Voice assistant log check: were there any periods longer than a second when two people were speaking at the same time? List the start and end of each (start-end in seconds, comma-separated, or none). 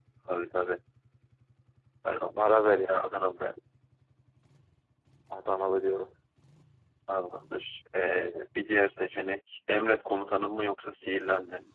none